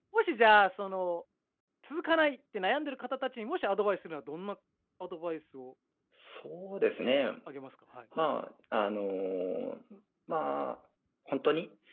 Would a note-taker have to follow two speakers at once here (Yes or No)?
No